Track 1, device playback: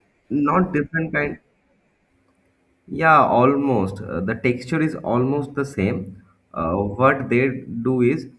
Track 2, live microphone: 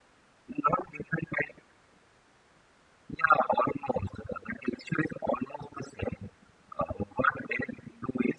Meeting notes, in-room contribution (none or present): none